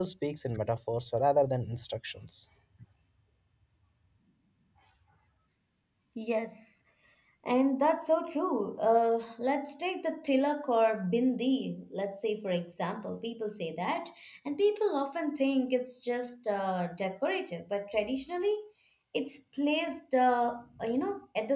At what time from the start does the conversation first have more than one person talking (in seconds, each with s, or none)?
none